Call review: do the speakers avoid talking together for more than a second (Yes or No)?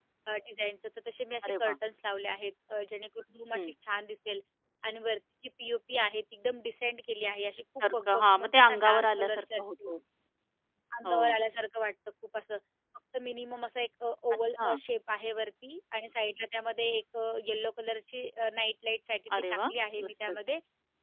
No